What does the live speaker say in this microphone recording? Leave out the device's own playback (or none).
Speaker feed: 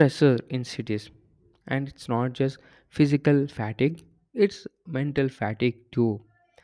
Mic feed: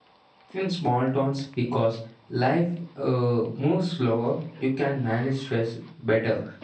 In small towns, because life uh, moves slower, you can manage stress better